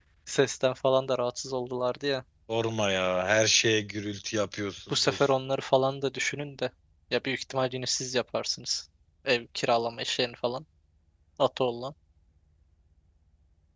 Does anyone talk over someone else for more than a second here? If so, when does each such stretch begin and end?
none

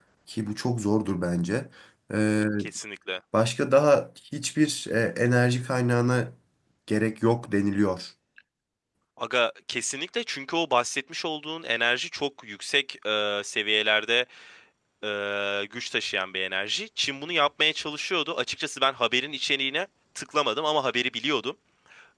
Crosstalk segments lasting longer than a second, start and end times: none

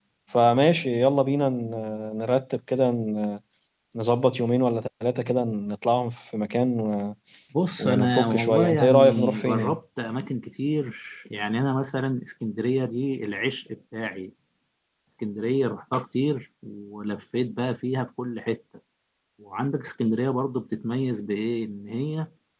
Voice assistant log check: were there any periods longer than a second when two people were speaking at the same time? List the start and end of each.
7.8-9.8

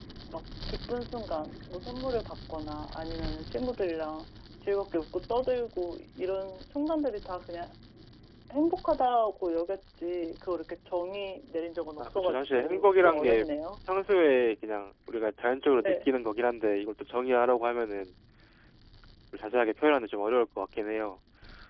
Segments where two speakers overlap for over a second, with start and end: 12.0-13.5

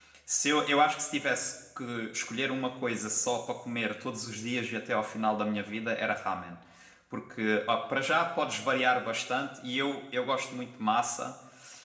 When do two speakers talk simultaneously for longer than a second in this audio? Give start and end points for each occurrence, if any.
none

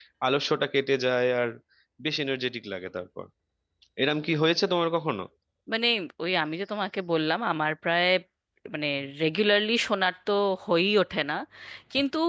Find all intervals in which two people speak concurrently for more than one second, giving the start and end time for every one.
none

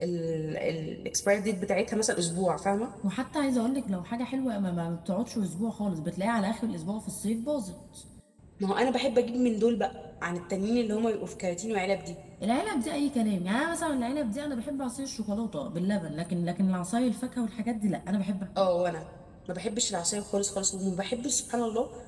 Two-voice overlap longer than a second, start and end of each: none

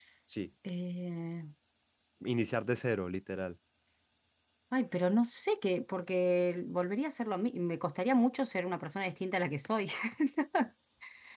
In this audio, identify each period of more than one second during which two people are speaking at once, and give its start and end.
none

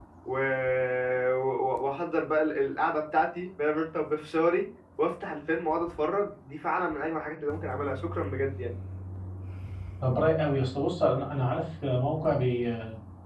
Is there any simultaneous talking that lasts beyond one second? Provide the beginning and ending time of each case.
none

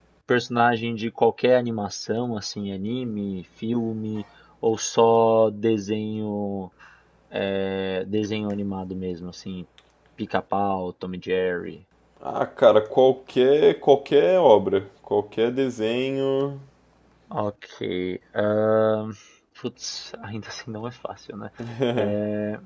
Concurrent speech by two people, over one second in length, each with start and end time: none

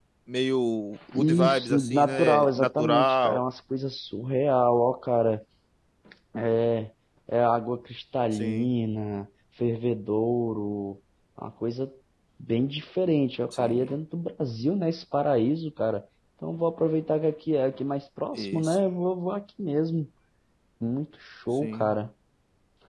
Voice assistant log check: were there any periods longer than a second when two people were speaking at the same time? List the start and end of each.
1.1-3.4

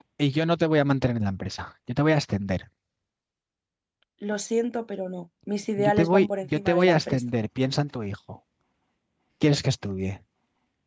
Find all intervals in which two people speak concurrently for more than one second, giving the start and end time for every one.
5.8-7.2

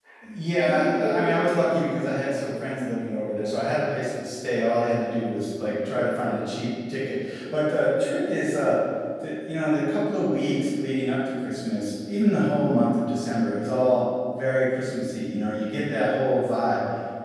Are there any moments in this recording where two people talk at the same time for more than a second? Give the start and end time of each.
0.6-2.5

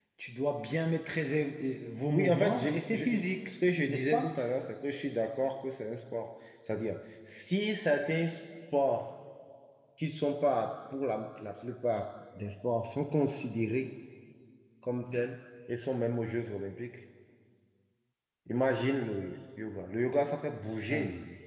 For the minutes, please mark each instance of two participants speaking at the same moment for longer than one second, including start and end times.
2.1-3.5

